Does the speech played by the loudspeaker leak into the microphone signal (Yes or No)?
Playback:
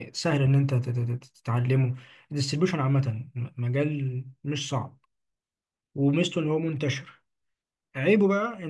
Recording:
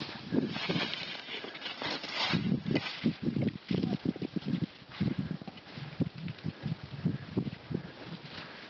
No